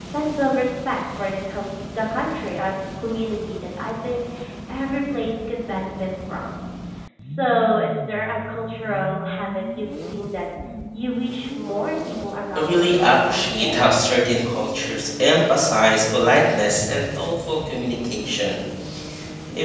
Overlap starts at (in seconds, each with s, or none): 12.6 s